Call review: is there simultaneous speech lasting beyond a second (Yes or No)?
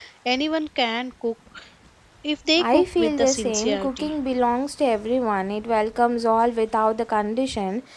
Yes